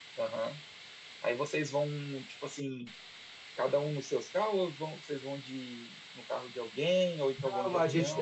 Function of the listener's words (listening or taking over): taking over